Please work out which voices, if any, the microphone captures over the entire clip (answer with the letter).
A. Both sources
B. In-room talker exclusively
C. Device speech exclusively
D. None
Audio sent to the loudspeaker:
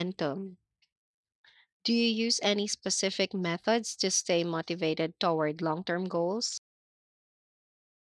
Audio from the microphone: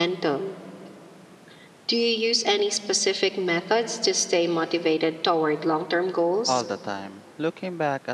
A